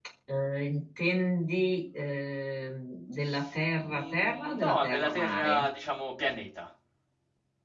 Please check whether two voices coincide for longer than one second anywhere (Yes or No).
Yes